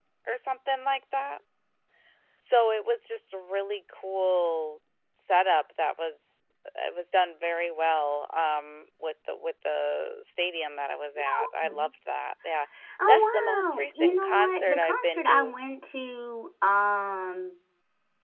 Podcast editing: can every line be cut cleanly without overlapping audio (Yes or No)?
No